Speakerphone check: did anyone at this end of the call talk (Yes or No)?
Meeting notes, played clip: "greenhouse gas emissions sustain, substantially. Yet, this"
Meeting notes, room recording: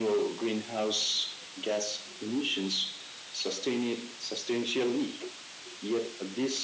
No